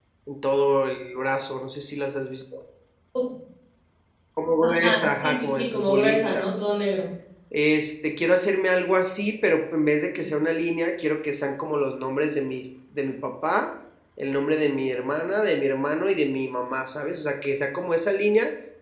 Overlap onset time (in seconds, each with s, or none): 4.6 s